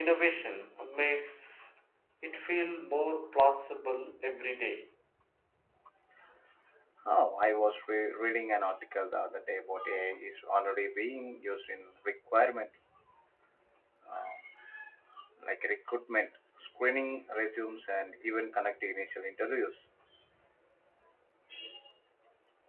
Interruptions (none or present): none